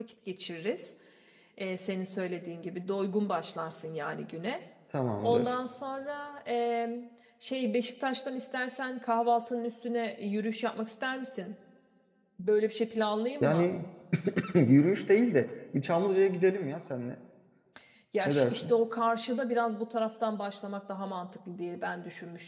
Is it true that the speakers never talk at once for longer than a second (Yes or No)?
Yes